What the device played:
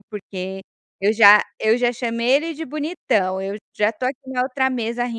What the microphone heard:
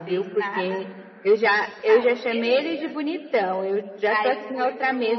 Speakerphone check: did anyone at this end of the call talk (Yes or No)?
Yes